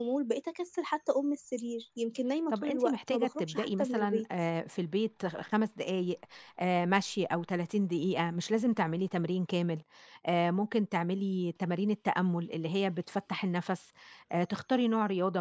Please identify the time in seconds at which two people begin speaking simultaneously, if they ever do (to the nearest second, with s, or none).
3 s